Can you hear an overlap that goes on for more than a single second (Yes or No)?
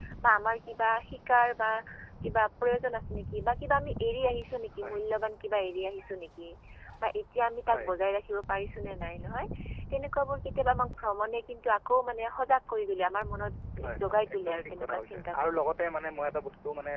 Yes